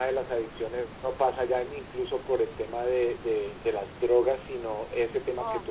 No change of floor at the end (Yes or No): Yes